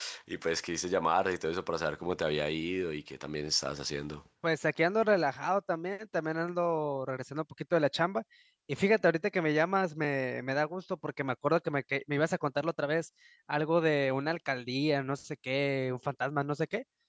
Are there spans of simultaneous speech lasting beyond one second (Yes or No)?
No